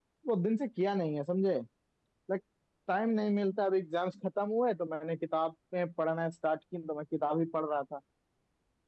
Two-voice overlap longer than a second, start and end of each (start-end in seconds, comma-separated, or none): none